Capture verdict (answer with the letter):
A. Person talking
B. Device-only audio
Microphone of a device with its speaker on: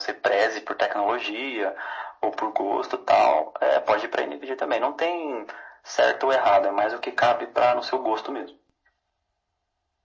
B